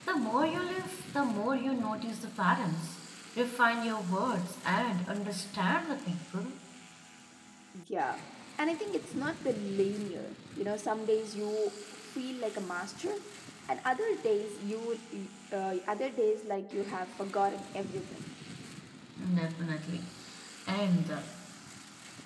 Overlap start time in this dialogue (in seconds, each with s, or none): none